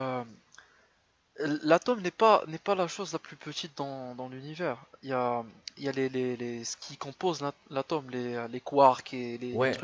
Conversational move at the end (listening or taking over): taking over